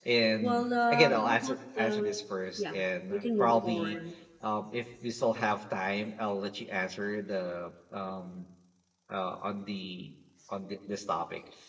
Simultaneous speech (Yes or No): Yes